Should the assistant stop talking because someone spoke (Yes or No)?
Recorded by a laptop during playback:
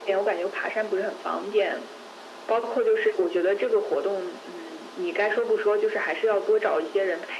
No